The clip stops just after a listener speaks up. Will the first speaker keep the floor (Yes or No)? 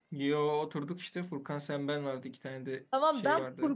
No